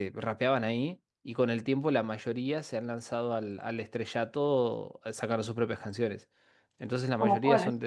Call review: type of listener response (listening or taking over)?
listening